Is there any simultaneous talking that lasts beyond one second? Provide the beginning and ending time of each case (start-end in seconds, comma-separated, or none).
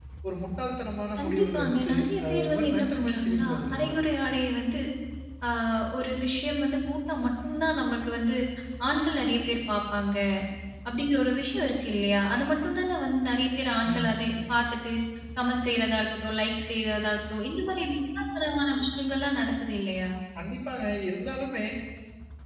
1.2-4.0